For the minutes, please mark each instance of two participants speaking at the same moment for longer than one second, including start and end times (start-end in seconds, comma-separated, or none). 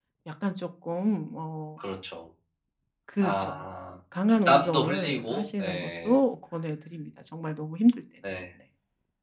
4.3-6.2